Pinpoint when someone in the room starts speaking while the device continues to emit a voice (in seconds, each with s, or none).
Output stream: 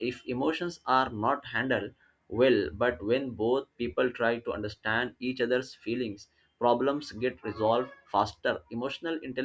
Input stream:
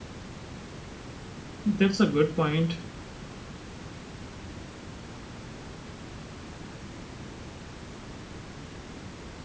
1.6 s